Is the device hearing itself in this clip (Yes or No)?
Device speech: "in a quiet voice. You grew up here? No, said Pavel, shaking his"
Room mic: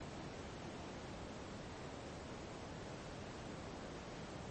No